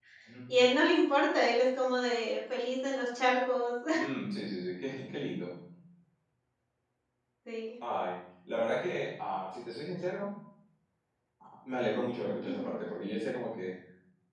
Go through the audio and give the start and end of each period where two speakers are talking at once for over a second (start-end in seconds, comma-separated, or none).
none